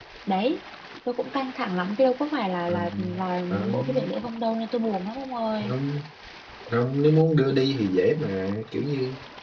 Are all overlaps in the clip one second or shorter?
Yes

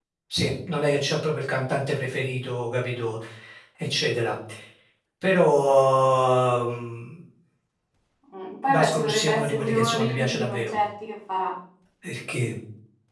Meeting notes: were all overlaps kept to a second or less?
No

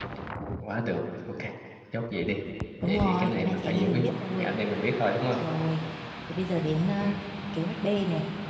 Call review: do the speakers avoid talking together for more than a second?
No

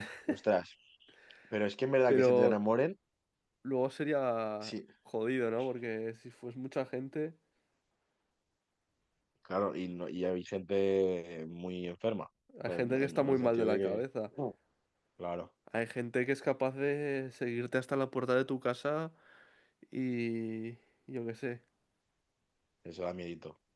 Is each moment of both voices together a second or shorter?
No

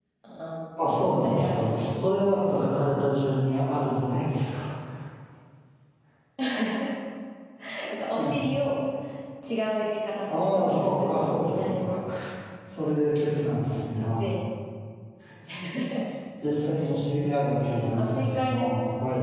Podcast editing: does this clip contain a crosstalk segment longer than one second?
Yes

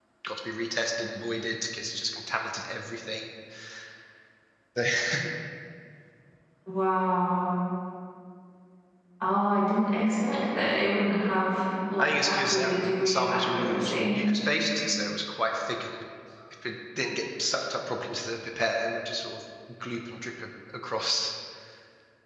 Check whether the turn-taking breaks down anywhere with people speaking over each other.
Yes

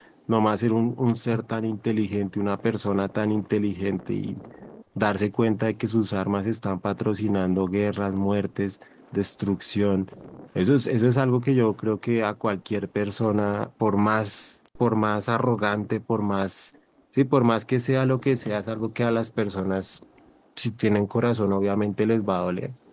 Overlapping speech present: No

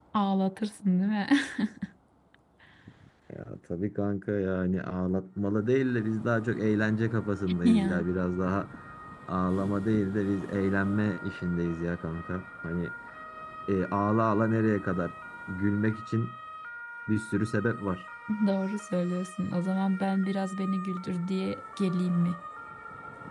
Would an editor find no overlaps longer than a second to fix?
Yes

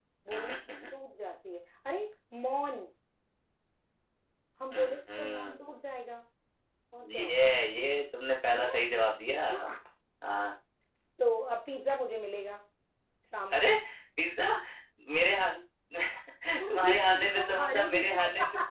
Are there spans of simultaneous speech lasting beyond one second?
Yes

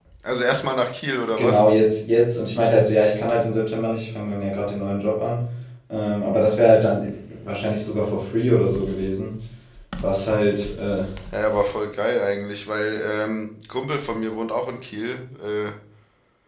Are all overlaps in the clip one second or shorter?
Yes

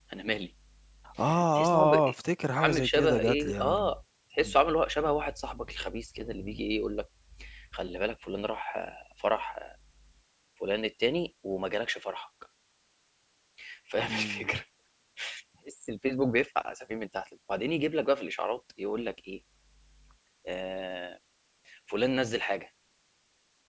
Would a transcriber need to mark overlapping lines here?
Yes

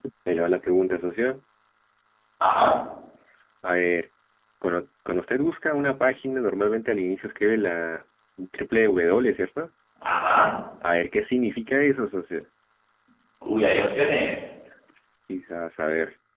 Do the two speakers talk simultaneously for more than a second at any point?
No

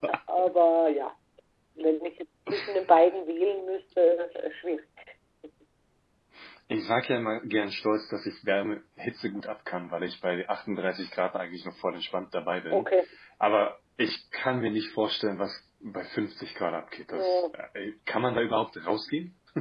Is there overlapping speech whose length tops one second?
No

